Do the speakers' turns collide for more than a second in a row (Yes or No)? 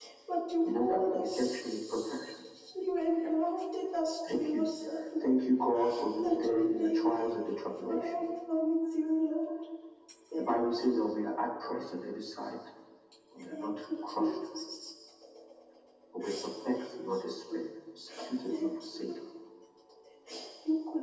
Yes